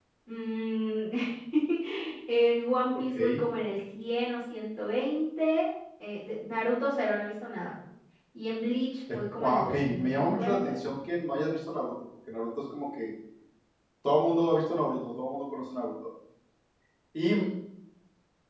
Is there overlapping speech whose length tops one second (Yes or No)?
Yes